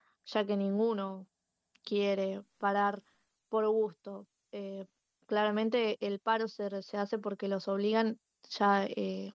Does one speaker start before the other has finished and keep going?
No

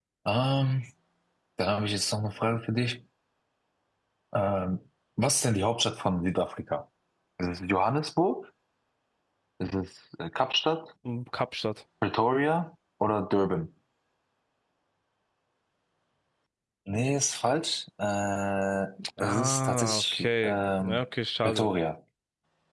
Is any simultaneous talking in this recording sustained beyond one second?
Yes, from 19.0 s

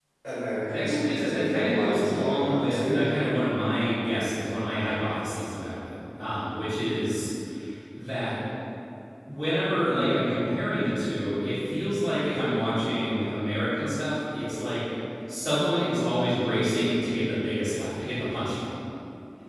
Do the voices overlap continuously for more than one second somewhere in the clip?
Yes, from 0.7 s

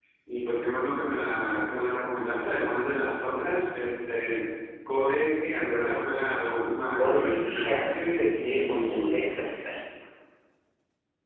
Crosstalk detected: Yes, from 7.0 s

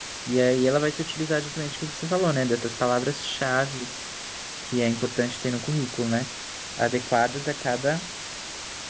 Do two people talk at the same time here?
No

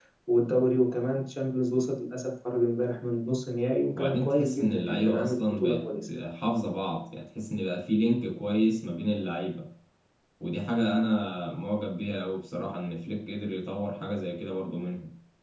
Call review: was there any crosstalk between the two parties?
Yes, from 4.0 s

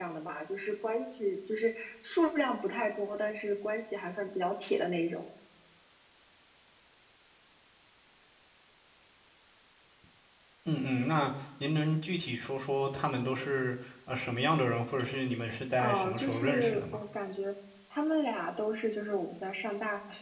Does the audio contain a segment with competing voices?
Yes, from 15.8 s

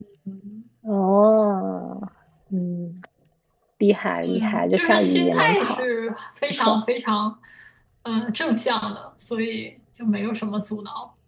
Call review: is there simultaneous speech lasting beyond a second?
Yes, from 4.2 s

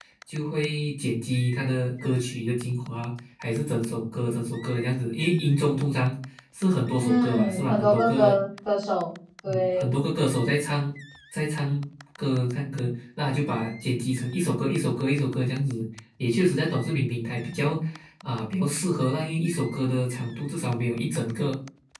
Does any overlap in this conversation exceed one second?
Yes, from 7.0 s

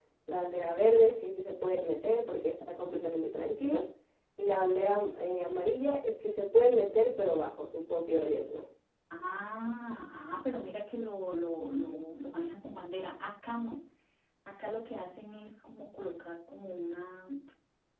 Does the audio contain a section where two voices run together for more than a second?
No

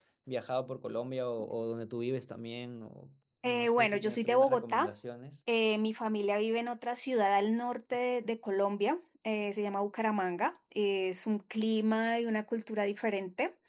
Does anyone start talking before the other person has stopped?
Yes, from 3.4 s

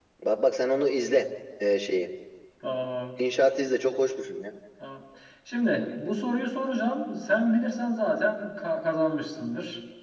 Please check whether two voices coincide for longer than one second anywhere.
No

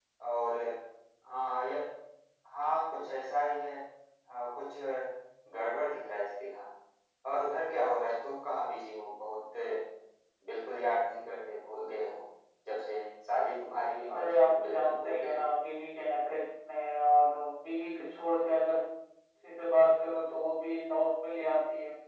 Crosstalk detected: Yes, from 14.1 s

